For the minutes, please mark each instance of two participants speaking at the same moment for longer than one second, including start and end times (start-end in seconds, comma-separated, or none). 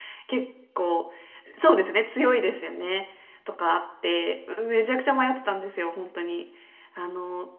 none